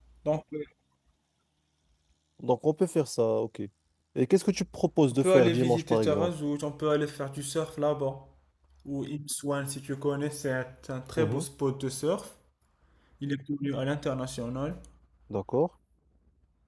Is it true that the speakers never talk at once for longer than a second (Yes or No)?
No